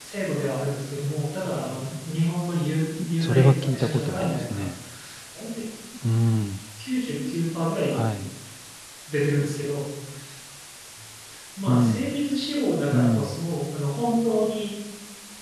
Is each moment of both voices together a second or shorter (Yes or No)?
No